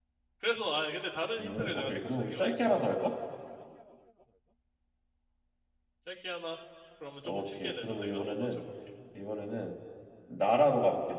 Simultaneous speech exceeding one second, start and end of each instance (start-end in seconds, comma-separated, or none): 1.4-2.8, 7.2-8.6